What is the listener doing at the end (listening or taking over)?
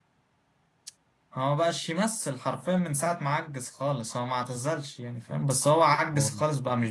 listening